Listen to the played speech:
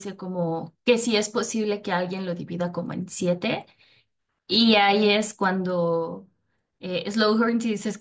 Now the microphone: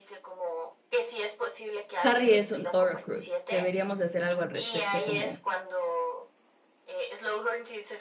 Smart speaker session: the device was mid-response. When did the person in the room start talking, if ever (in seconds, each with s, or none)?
2.0 s